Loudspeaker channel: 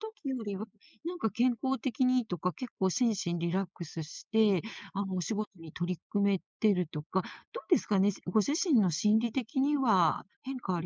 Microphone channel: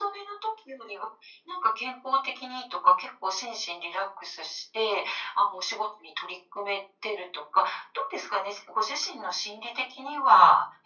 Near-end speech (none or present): none